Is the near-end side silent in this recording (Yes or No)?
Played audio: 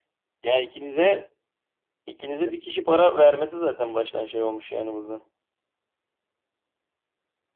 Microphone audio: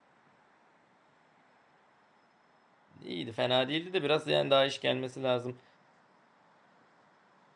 No